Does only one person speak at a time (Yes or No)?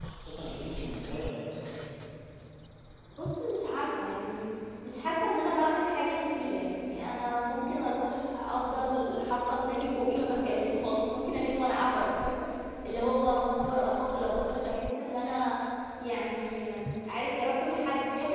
Yes